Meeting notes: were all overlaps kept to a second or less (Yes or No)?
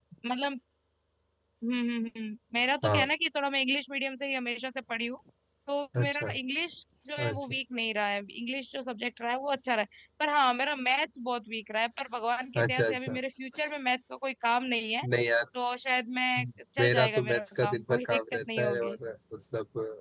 No